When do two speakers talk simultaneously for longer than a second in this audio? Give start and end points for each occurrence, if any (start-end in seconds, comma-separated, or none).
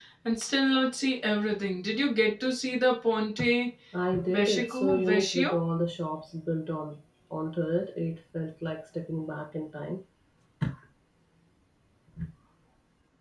4.3-5.6